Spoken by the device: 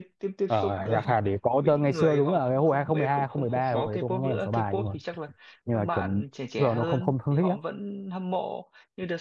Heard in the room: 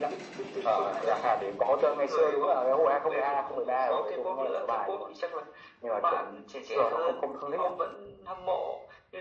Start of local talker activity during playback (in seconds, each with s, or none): none